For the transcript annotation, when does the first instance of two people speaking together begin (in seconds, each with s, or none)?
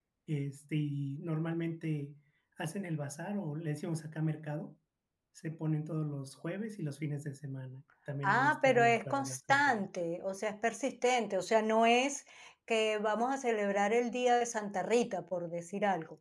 8.2 s